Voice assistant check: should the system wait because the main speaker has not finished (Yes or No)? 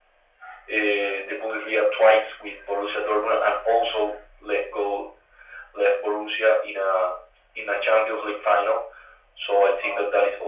Yes